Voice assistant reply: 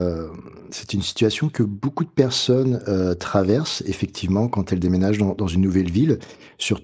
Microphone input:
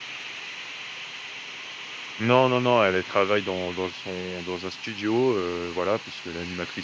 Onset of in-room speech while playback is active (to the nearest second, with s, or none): 2 s